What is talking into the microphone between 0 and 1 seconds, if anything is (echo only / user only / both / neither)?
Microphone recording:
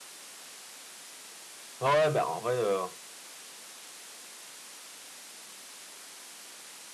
neither